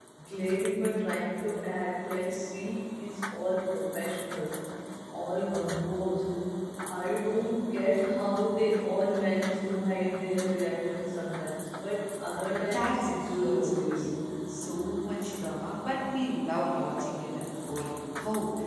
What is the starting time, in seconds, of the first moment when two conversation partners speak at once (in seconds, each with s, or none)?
12.6 s